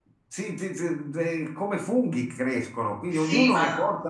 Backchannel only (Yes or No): Yes